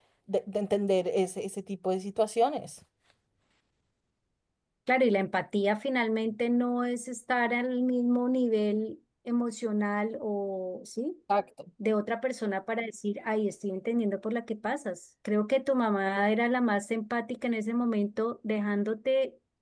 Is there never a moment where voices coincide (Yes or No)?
Yes